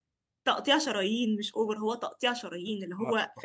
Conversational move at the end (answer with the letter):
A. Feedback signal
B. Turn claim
A